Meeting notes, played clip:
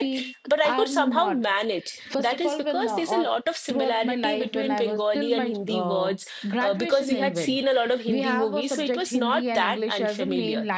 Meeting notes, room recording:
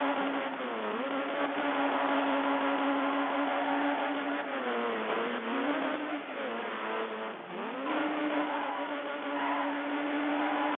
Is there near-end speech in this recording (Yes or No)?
No